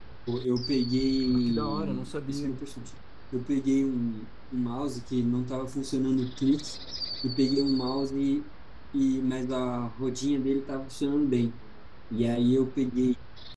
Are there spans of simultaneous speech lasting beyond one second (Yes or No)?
Yes